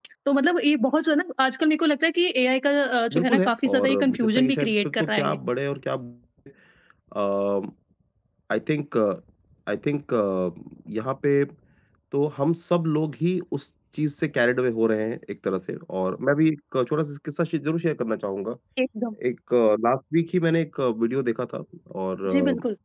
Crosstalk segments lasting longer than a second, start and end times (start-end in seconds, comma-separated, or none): 3.1-5.4